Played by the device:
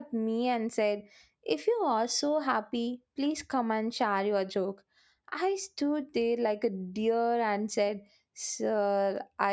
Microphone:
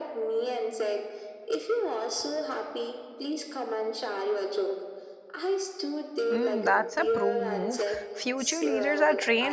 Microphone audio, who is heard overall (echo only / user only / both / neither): both